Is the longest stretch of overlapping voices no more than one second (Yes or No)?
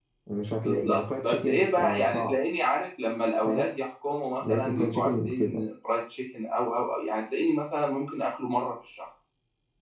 No